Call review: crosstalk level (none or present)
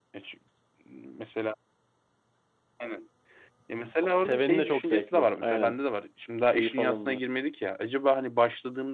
present